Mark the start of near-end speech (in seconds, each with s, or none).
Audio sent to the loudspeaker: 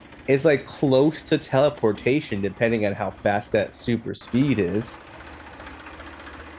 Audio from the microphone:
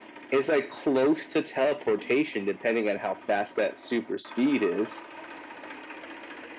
none